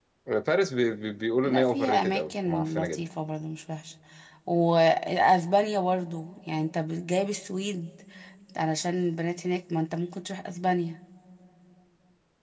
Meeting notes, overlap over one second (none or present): present